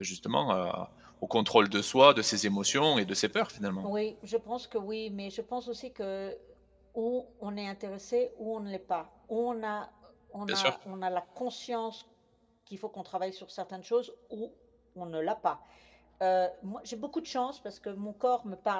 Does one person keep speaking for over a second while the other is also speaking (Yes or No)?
No